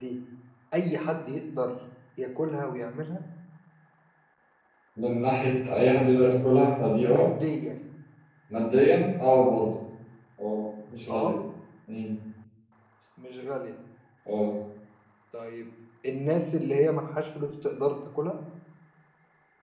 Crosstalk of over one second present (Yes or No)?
No